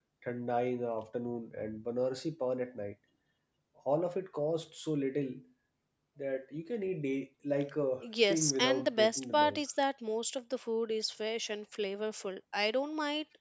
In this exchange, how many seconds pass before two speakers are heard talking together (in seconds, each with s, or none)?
8.0 s